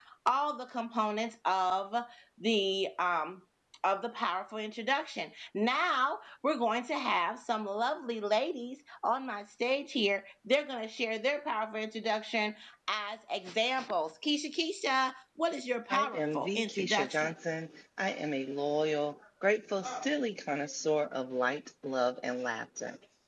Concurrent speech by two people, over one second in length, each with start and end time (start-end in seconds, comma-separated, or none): 15.9-17.3